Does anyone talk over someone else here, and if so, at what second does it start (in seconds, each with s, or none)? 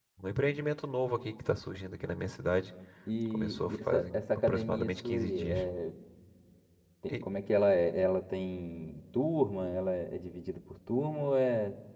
3.3 s